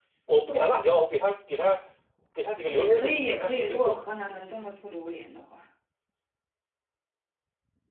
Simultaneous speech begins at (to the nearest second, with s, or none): 3 s